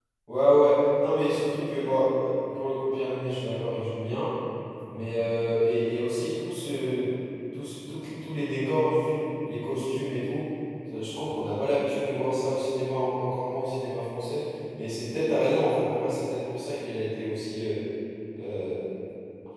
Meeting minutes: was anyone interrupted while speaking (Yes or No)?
No